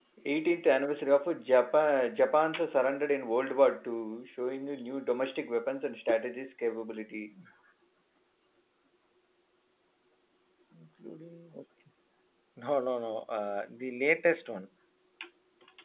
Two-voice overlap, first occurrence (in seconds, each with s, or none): none